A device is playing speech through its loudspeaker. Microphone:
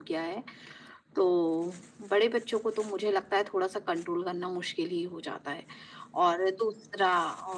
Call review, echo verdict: present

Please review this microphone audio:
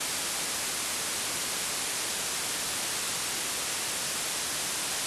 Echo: none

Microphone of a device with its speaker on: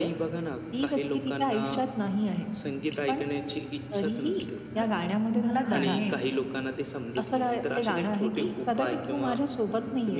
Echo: present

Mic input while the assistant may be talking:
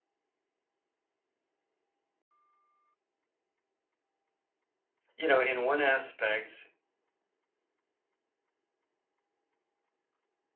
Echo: none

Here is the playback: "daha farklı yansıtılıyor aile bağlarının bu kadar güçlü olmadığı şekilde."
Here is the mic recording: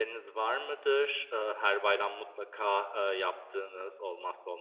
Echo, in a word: none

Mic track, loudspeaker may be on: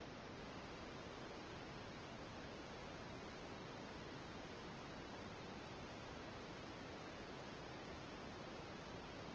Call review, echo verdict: none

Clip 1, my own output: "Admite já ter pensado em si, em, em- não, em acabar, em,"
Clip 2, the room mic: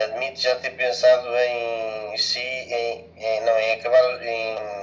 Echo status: present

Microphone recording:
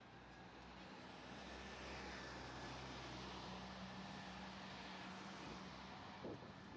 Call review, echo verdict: none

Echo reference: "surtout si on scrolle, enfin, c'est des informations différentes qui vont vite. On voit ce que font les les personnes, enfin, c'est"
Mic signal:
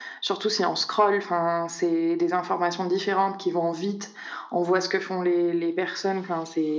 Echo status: present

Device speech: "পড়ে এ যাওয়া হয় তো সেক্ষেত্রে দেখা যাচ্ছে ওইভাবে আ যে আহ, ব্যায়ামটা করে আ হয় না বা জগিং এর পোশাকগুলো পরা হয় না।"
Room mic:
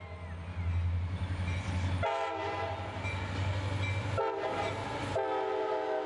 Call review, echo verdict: none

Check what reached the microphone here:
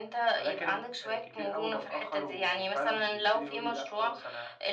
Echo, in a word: present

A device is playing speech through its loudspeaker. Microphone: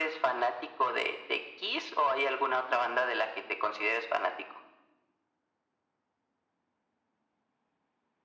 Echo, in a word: present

